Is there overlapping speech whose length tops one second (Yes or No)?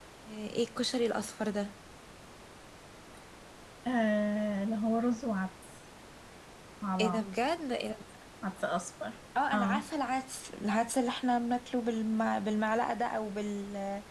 No